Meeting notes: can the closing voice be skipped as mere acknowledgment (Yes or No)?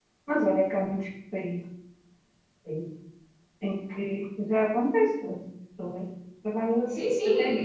No